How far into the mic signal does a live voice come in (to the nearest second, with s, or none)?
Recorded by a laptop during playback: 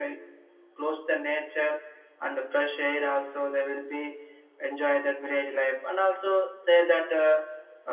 none